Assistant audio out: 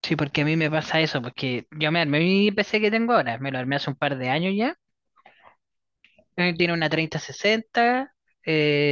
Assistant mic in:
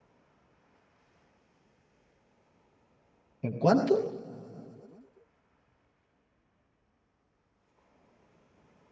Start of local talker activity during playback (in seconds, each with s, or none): 3.4 s